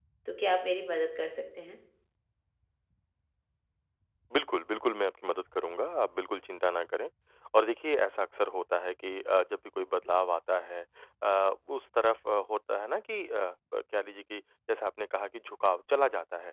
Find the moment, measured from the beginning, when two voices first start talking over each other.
none

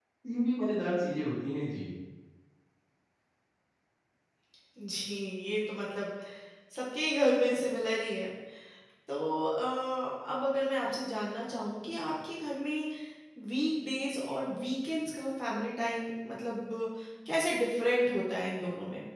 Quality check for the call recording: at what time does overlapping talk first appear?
none

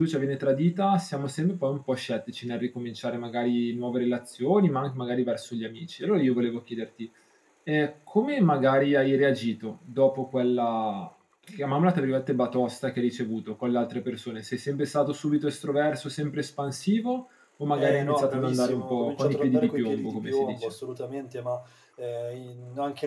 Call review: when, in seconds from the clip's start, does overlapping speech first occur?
17.8 s

